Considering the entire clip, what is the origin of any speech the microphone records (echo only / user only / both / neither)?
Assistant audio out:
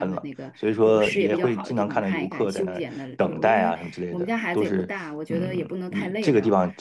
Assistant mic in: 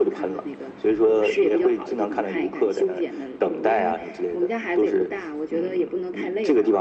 echo only